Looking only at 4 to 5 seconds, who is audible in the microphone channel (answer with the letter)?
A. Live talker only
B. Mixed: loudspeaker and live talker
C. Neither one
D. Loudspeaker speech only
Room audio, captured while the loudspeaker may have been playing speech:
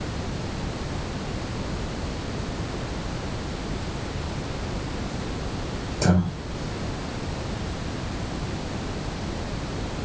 C